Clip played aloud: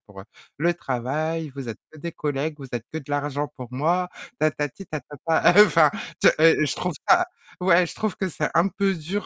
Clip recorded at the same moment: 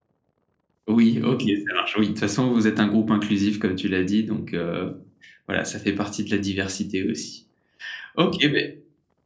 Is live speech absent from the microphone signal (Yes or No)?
No